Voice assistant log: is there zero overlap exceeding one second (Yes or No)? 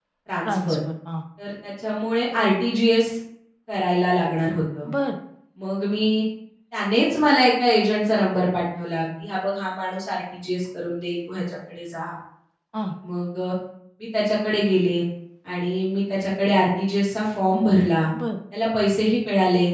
Yes